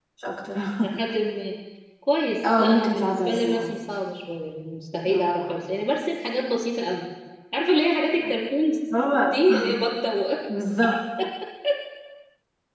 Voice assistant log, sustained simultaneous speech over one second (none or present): present